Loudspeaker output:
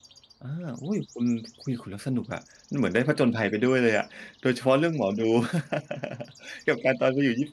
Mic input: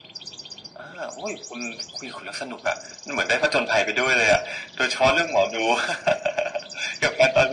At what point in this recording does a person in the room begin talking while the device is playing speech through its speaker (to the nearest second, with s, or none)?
none